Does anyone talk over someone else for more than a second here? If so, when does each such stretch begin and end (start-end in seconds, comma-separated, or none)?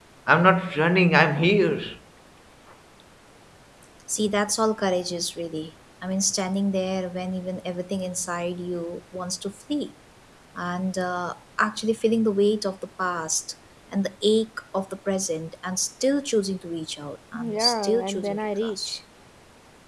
17.3-19.0